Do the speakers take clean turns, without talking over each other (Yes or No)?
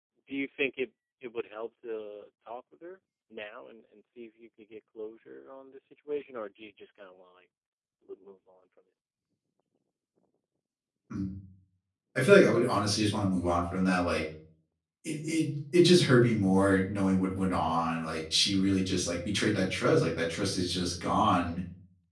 Yes